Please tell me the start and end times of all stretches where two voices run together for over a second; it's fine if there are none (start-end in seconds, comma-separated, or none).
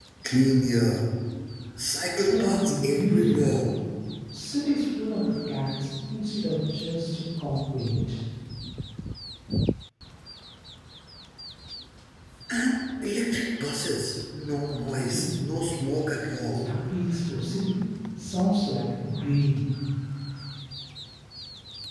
2.3-3.6